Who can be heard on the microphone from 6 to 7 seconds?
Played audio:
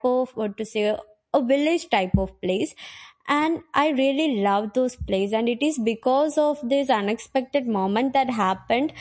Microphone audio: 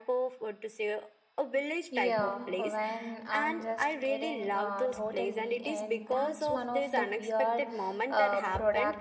both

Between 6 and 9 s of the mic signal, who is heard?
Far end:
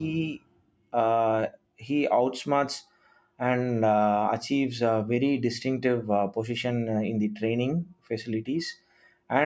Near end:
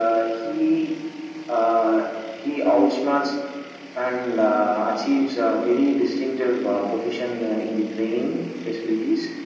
echo only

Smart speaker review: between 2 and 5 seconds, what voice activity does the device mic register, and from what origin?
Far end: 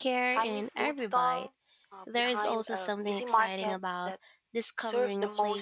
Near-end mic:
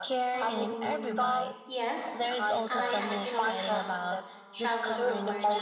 both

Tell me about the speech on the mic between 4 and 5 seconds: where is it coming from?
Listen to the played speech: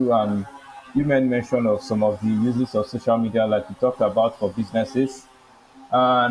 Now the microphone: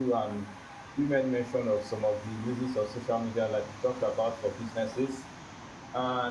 echo only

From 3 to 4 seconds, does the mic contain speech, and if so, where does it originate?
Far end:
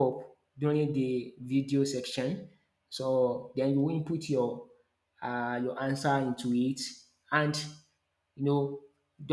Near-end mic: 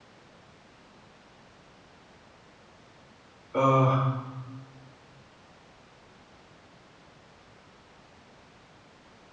user only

